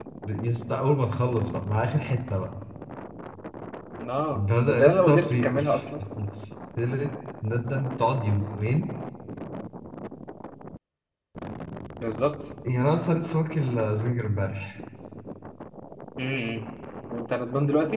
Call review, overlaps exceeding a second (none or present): present